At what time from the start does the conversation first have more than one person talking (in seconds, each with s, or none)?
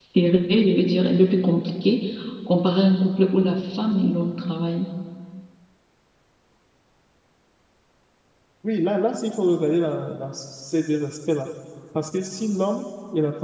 none